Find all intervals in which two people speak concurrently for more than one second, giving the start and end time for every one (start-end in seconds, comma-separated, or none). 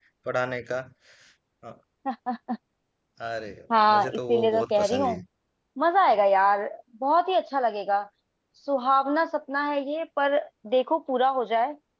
3.9-5.1